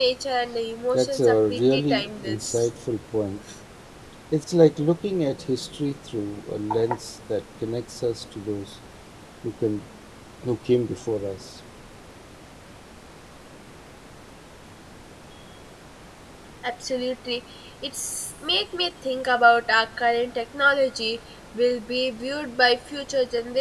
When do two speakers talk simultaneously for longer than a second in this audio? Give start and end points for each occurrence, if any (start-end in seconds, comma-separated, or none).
0.9-2.7